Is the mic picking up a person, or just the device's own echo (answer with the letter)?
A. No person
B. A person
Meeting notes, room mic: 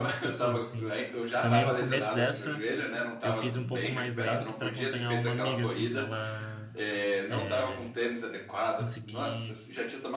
B